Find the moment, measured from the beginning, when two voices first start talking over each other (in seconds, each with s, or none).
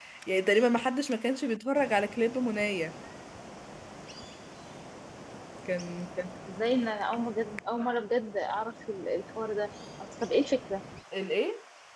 none